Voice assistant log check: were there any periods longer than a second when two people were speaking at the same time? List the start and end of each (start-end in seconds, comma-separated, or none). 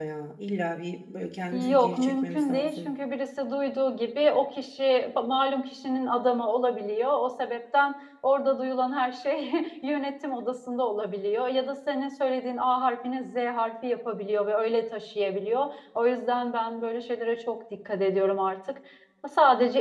1.5-2.9